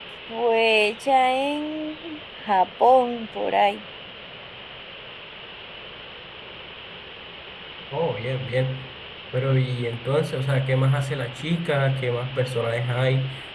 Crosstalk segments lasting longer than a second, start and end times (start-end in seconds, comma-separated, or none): none